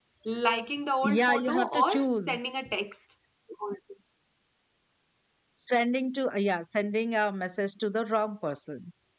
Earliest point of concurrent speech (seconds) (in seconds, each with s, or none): 1.0 s